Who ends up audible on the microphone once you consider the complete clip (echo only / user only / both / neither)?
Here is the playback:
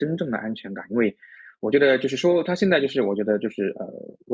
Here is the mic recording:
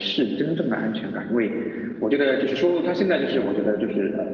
echo only